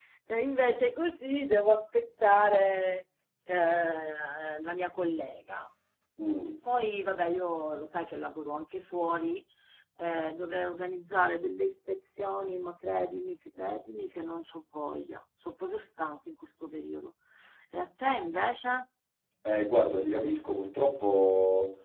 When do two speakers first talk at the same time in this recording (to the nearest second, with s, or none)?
none